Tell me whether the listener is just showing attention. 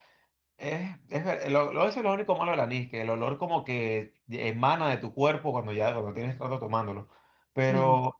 Yes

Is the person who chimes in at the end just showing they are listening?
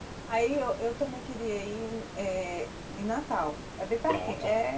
No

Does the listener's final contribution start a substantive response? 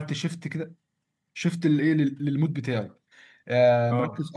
No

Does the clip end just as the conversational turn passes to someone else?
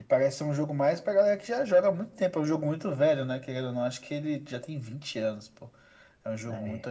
No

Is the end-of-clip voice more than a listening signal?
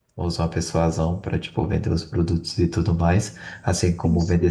No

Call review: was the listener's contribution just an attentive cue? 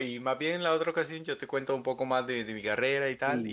No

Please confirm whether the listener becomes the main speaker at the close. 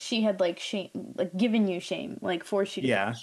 Yes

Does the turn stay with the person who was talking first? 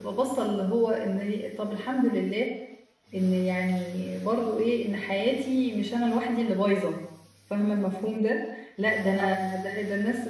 Yes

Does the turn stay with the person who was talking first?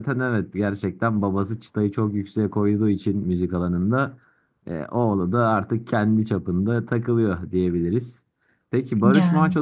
Yes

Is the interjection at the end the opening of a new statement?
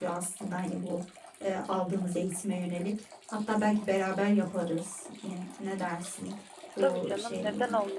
Yes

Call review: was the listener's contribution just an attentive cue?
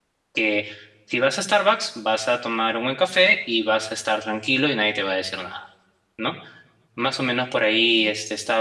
Yes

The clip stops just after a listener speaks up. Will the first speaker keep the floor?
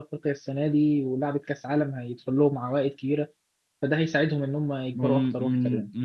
No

